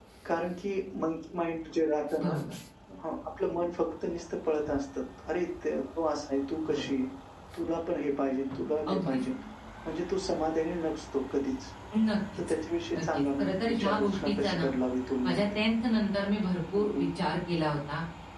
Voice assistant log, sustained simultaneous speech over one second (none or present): present